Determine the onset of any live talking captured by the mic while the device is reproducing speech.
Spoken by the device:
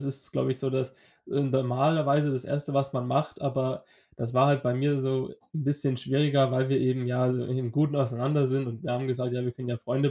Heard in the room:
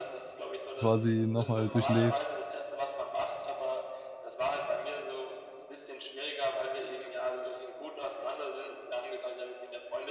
1 s

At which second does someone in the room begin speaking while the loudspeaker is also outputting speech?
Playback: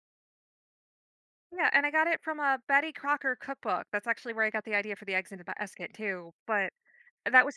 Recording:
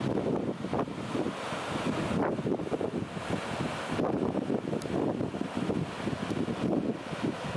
none

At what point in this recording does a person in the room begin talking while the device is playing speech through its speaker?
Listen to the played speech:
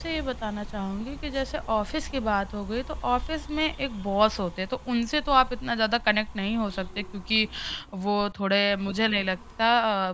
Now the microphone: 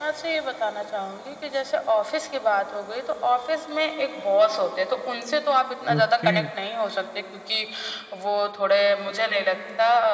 6 s

